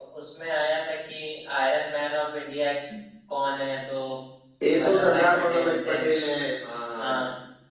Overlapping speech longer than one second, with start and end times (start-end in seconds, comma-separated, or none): 4.8-6.0